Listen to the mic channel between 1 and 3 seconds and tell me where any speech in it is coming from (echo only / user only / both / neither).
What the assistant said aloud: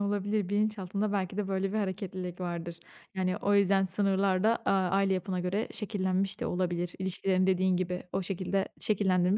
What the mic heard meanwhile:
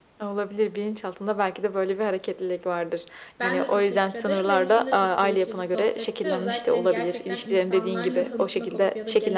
echo only